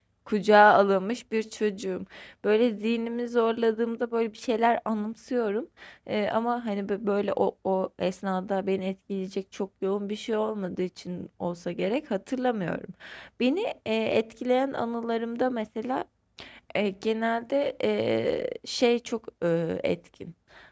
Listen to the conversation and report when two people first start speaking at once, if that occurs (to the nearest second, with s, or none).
none